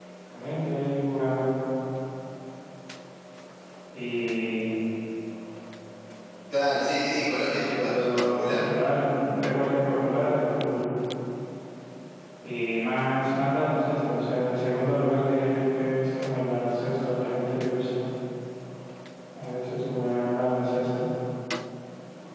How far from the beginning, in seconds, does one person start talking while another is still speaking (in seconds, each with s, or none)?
7.0 s